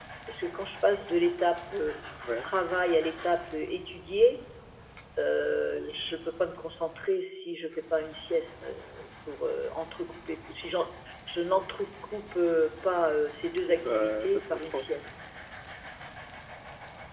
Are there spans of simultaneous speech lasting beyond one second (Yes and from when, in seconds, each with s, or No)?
Yes, from 13.7 s